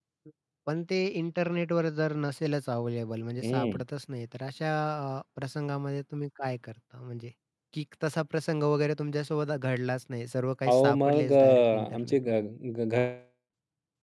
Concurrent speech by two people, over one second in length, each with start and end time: 10.7-12.2

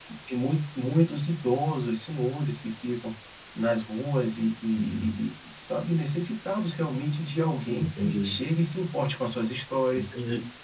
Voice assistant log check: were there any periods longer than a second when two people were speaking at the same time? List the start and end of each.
none

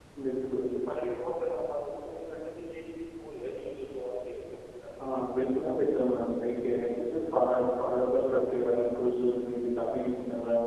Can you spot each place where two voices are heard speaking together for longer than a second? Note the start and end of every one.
none

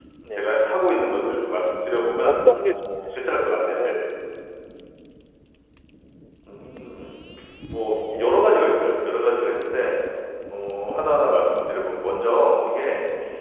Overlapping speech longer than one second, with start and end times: 2.2-4.0

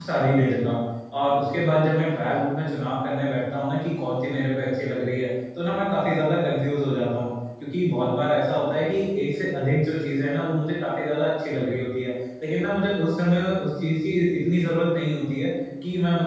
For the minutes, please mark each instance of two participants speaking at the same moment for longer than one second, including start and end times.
none

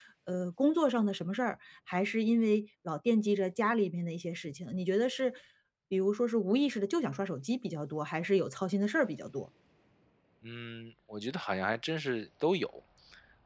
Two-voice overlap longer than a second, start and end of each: none

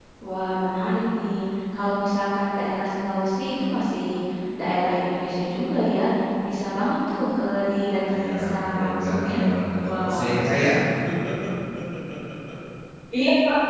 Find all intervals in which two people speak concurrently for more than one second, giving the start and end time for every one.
8.1-9.4

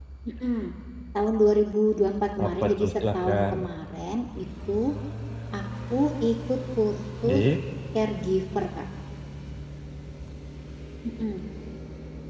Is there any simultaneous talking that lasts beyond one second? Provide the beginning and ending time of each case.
2.4-3.6

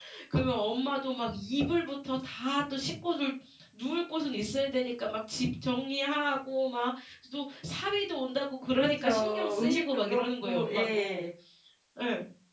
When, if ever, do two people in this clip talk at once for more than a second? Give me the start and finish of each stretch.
8.8-11.2

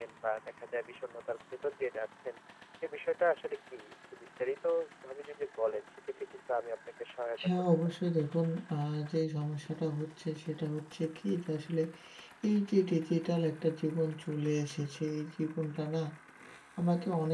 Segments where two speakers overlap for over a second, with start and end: none

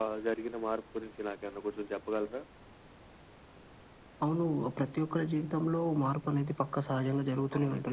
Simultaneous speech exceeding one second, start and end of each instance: none

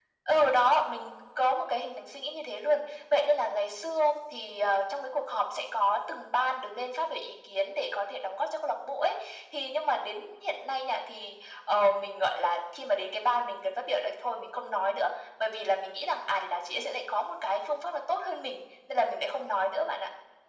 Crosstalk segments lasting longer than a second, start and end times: none

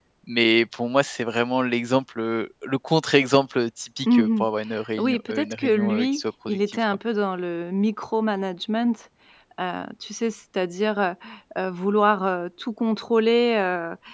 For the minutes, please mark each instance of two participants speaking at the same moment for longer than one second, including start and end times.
5.0-6.8

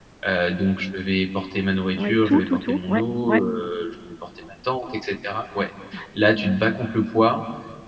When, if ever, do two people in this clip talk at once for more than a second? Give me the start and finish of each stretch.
2.0-3.4

